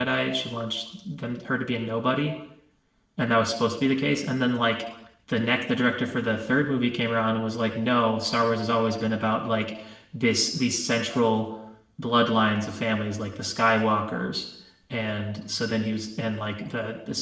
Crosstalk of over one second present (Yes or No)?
No